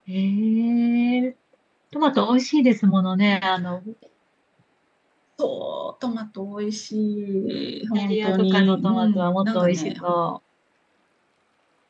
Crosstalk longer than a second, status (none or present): present